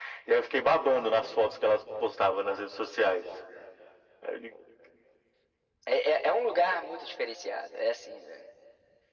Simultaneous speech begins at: none

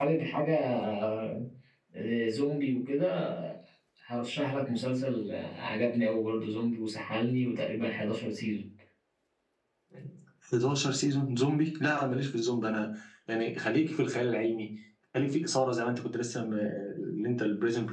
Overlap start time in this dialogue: none

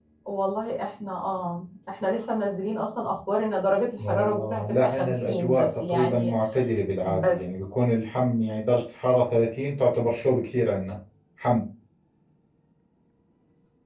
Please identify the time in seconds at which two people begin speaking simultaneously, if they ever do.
4.0 s

